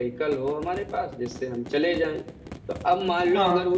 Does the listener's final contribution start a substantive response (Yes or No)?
No